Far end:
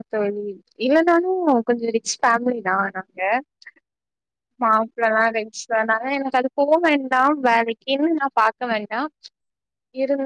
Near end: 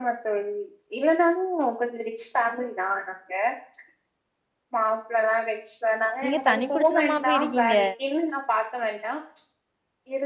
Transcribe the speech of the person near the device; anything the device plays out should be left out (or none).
நீங்க தனி குடுத்தனமா போய் இருக்கீங்க